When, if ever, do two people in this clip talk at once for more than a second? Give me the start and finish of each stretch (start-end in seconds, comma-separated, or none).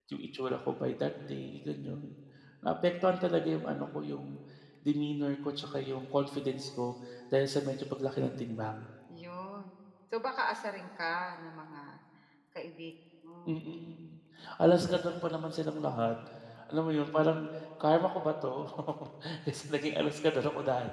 none